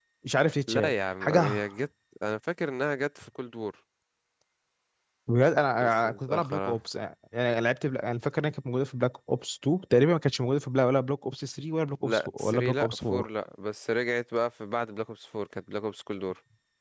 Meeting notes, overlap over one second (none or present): present